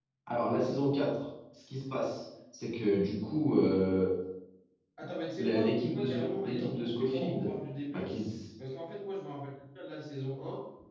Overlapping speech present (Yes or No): Yes